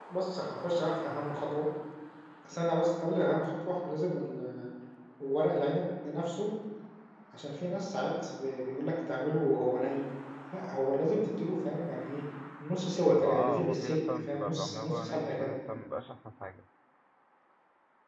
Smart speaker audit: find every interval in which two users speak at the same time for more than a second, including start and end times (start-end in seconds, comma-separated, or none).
13.2-15.5